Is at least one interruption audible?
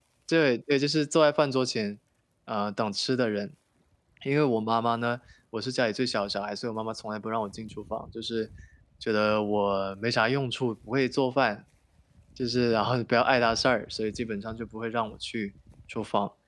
No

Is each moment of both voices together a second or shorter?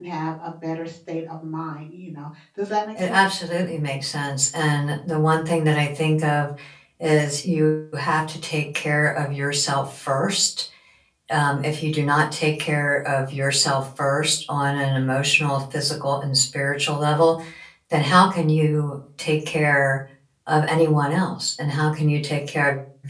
Yes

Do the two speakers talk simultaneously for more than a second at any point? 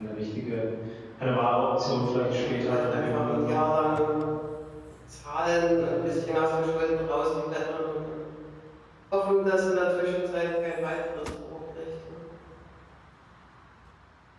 Yes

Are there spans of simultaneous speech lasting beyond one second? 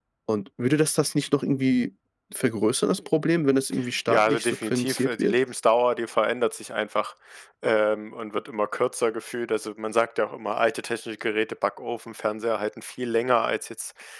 Yes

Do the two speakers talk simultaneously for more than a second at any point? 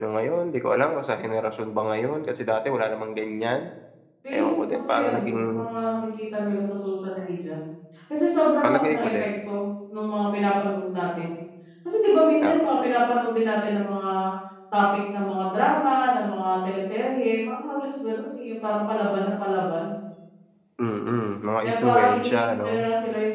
Yes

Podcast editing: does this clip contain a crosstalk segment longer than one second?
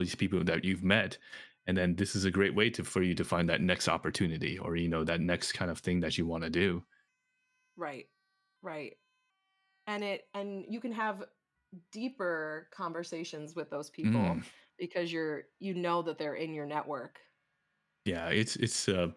No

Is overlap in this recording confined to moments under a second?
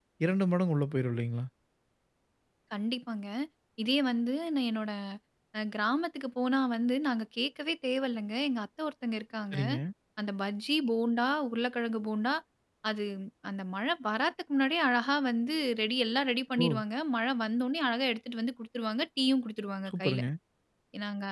Yes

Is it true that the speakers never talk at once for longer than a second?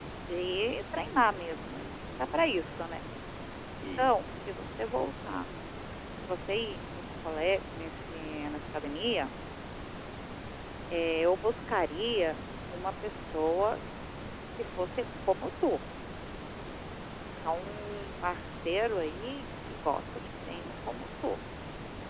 Yes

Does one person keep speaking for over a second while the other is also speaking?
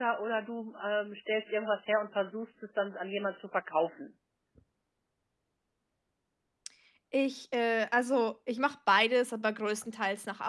No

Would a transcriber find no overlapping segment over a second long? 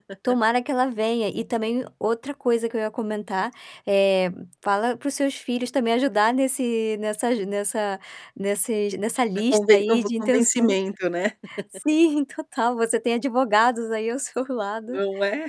No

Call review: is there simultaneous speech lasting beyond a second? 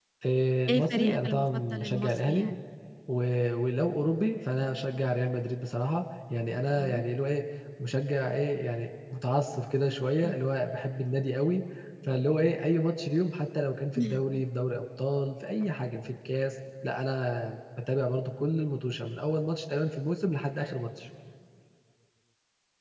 Yes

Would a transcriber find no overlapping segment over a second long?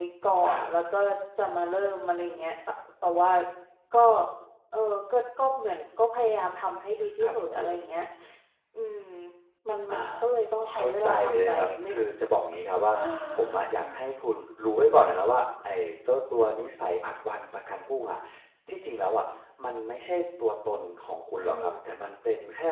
No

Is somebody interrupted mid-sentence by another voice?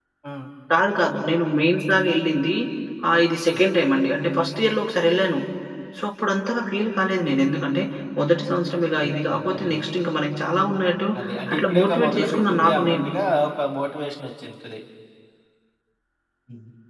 Yes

